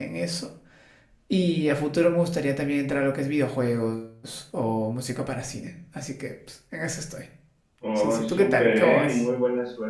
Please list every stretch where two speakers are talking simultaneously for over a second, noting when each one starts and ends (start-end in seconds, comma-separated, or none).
8.0-9.2